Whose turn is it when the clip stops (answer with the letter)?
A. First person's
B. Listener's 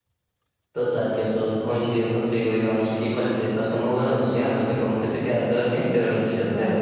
B